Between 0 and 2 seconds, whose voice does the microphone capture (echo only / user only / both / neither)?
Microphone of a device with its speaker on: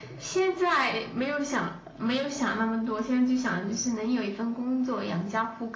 echo only